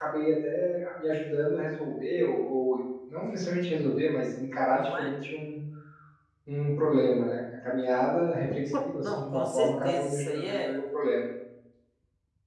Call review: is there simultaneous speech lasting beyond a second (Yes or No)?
Yes